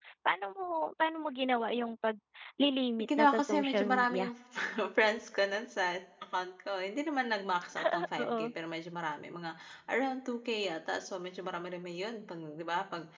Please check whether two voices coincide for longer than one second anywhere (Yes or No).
Yes